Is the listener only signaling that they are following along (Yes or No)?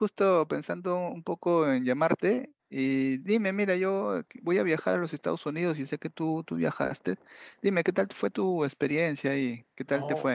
No